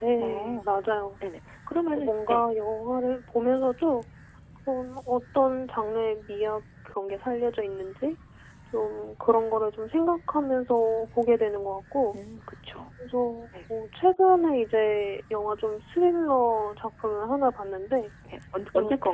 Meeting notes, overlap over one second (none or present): none